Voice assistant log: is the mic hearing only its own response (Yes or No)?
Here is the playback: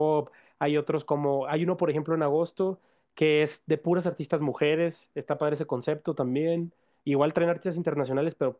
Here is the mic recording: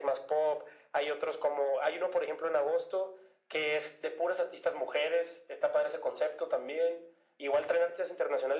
Yes